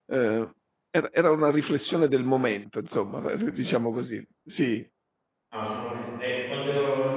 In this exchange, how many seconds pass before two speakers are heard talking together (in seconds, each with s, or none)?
none